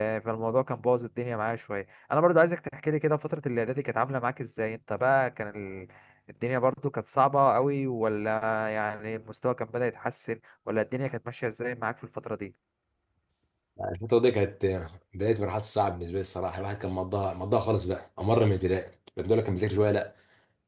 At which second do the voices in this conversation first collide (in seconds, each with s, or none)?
none